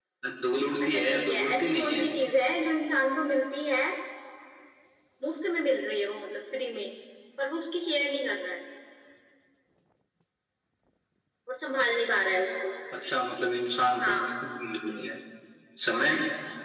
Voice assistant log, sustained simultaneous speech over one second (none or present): present